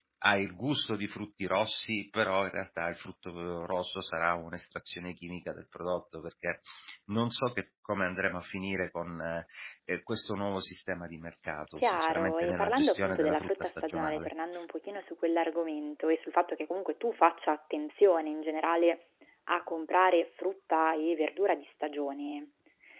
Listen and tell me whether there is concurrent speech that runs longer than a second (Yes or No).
Yes